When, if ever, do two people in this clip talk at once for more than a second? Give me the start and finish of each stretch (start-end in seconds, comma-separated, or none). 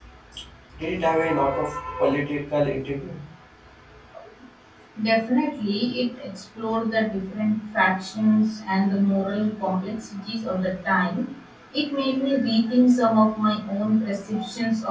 none